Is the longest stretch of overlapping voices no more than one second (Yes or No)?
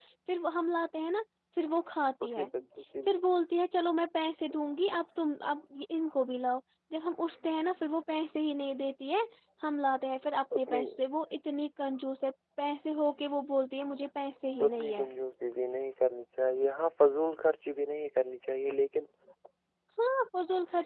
Yes